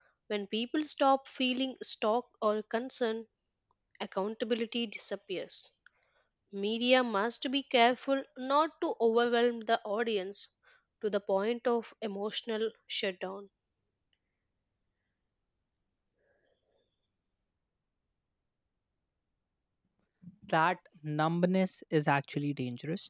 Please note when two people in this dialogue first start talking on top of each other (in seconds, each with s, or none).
none